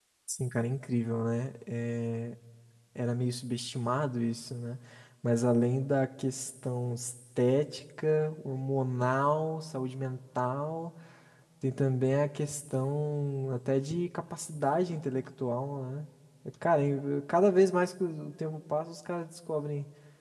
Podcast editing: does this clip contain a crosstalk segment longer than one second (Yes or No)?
No